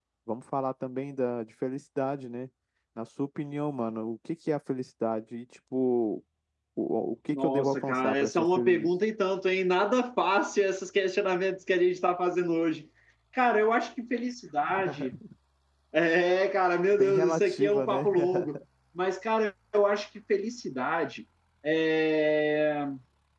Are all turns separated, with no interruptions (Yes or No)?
No